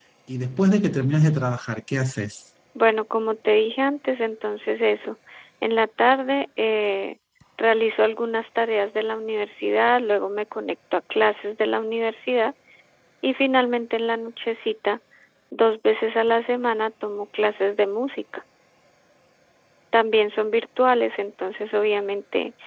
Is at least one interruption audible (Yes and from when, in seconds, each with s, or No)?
No